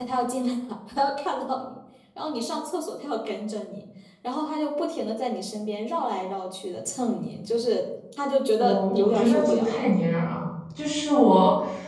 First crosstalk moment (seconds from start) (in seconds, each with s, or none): 8.6 s